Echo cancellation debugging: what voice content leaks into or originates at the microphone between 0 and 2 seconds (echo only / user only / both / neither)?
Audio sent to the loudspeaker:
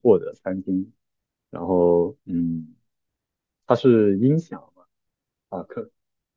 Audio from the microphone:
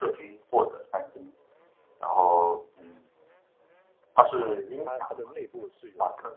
echo only